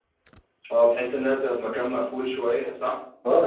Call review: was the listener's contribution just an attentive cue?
No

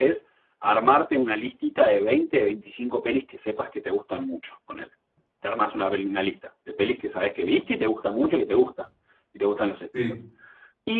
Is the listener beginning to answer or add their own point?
No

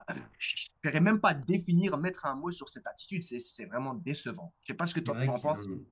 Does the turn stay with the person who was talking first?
No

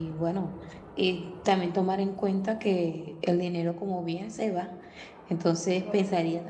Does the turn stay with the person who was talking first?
Yes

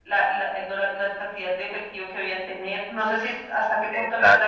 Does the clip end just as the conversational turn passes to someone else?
No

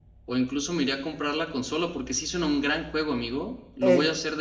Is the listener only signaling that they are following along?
No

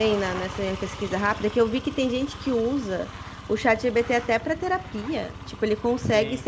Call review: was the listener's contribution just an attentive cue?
Yes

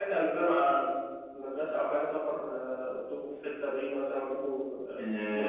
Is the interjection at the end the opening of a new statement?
Yes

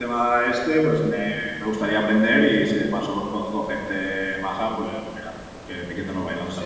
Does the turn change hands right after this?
Yes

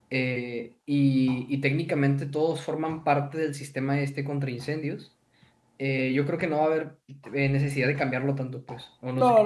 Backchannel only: No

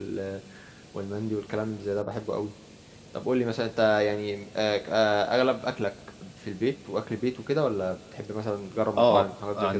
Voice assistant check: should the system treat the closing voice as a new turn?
Yes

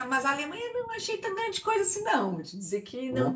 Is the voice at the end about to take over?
No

